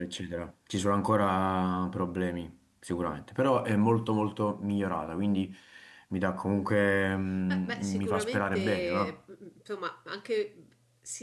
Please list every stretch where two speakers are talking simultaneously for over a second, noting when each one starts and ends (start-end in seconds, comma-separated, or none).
7.5-9.2